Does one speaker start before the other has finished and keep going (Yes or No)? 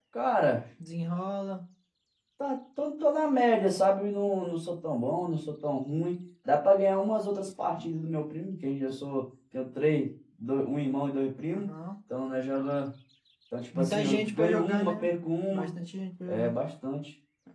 Yes